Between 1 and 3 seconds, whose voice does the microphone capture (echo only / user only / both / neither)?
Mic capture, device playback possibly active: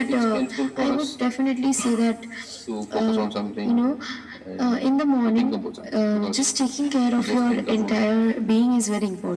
echo only